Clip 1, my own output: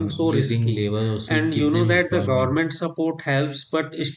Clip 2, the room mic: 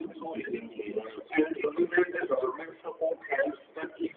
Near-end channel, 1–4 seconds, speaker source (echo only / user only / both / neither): echo only